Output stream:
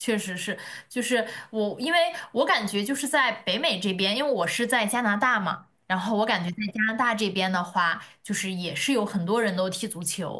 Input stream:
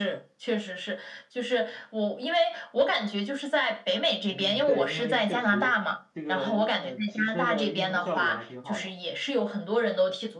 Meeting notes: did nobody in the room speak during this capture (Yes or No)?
No